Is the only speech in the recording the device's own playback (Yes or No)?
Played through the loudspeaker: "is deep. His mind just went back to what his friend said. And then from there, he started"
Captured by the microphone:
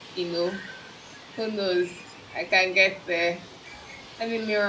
No